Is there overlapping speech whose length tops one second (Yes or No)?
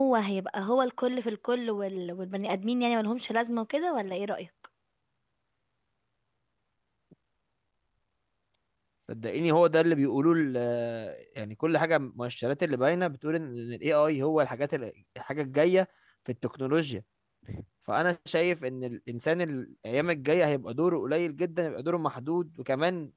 No